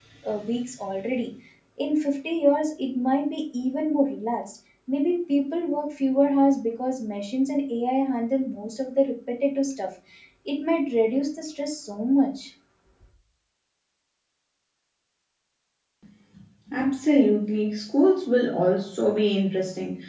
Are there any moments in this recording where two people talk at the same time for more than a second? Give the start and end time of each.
none

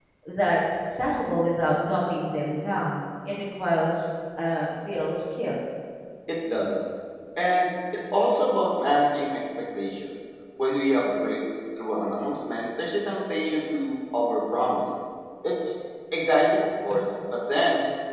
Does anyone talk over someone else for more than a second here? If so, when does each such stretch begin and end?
none

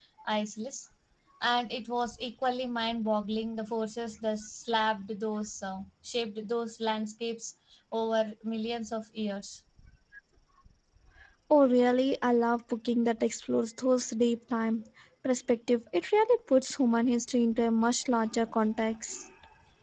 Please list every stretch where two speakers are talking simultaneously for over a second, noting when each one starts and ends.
none

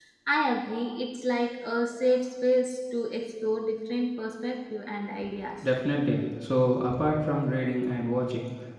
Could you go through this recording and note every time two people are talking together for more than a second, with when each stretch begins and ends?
none

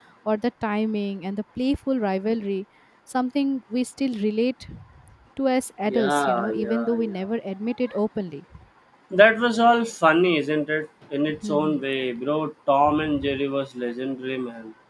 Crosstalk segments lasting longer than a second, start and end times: 5.9-7.1

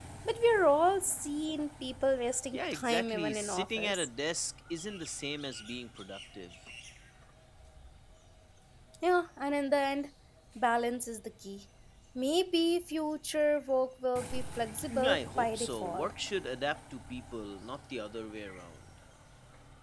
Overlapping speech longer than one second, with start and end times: 2.5-4.1, 14.9-16.1

